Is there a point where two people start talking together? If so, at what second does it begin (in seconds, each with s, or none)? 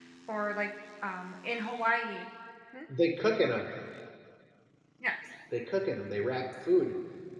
none